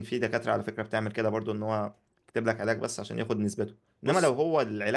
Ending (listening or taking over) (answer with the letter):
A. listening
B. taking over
A